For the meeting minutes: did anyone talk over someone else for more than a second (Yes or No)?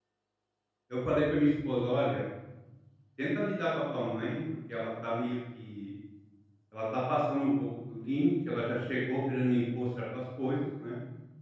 No